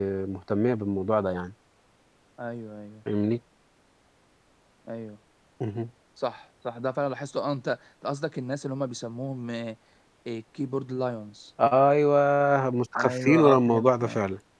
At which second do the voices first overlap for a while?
12.9 s

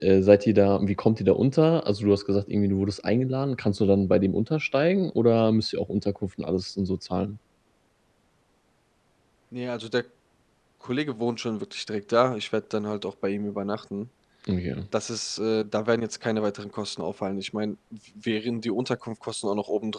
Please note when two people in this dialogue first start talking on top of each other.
none

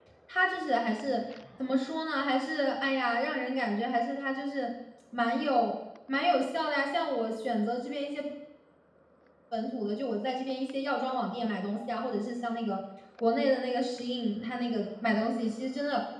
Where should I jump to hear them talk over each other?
none

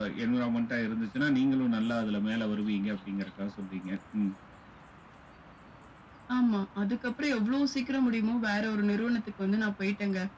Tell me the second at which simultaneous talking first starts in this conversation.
none

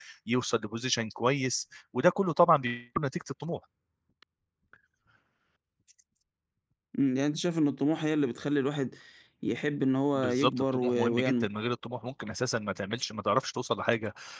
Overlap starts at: 10.2 s

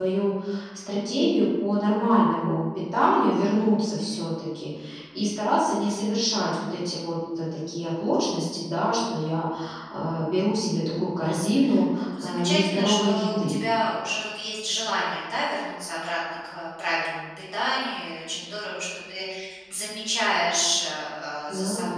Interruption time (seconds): 12.2 s

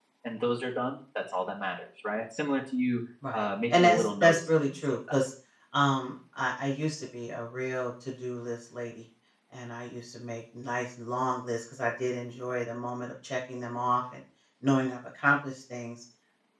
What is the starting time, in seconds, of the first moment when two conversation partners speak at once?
3.2 s

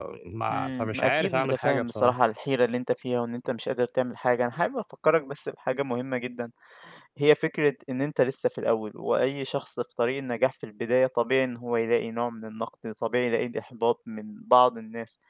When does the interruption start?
0.5 s

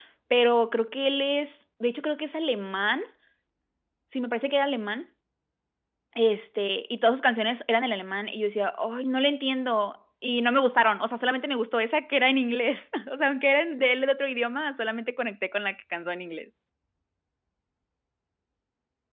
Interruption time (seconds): none

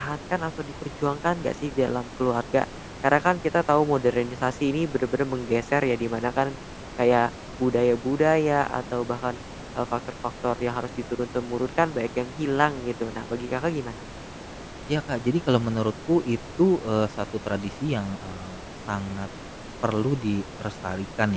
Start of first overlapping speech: none

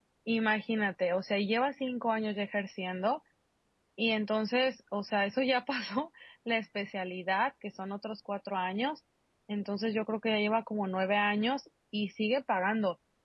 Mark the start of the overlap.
none

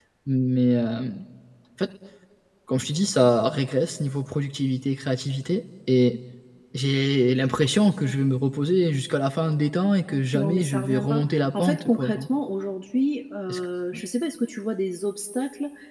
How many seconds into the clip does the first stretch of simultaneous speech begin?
10.3 s

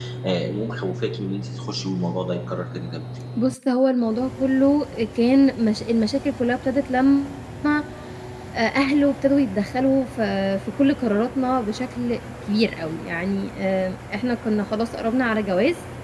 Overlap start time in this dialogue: none

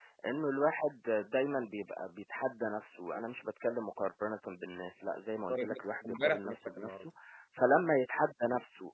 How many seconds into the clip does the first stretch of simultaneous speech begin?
5.5 s

